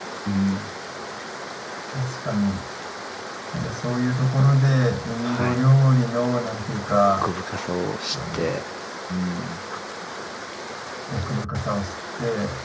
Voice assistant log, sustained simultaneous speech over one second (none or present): none